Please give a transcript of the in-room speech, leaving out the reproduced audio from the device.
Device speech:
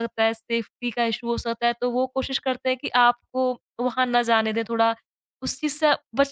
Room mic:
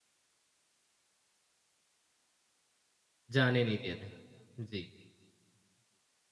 जाने नहीं दे रहे हैं। जी,

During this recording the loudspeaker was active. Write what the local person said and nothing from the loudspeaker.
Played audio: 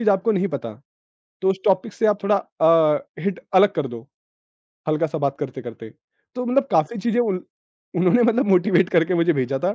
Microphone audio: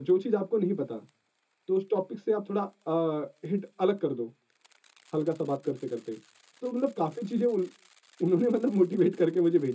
none

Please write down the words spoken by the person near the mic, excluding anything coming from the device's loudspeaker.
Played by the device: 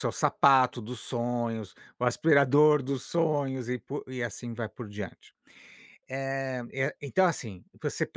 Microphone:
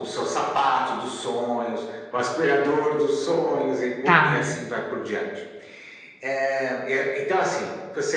tá,

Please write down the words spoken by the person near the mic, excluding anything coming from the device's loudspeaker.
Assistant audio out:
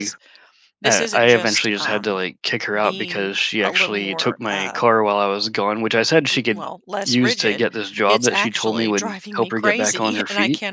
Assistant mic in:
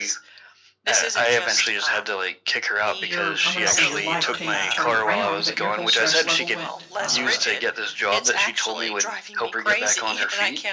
your I am going to say your life tan turned around, but your whole stress level went, uh,

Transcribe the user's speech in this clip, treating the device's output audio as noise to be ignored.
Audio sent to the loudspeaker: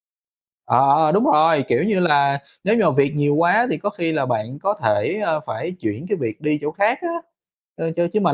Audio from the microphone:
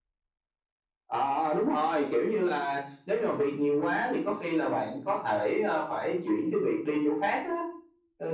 none

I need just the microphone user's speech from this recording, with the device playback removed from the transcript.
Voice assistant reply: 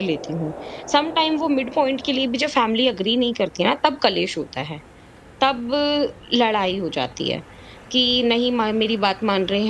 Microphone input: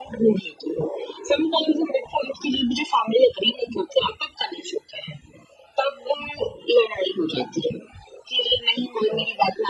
none

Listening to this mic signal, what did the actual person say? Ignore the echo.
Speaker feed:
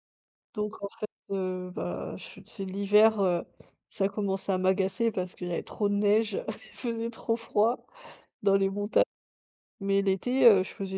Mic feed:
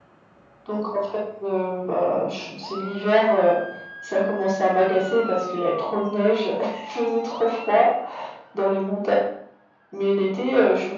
none

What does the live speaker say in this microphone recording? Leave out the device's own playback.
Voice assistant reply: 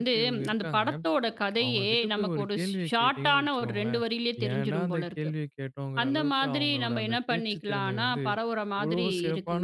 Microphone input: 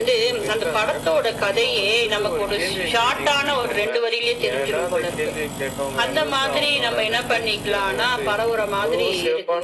none

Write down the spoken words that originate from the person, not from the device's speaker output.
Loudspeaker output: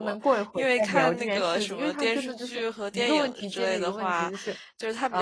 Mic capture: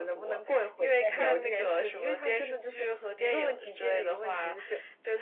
none

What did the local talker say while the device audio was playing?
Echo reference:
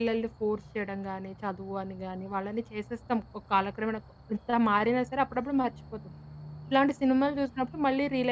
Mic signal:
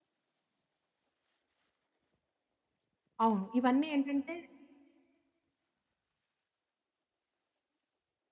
అవును. ఇవన్నీ ఏంటంటే

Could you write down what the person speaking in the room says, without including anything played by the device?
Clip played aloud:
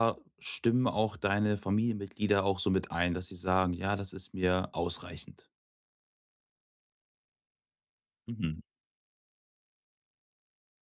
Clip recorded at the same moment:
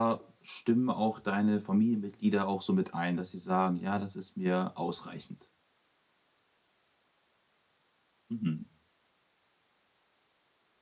none

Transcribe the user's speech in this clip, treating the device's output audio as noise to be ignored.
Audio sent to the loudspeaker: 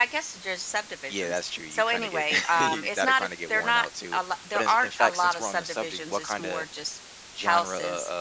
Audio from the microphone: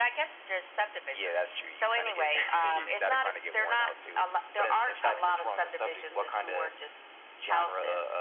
none

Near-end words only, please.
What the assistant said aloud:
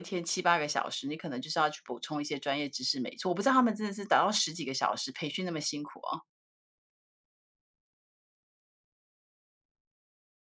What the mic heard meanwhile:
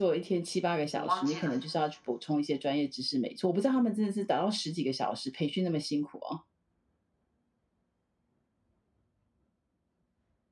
我忘记了。

